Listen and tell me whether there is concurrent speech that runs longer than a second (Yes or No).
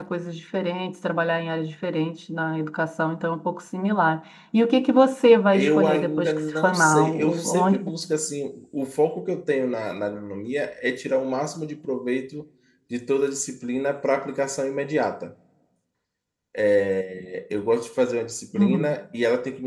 Yes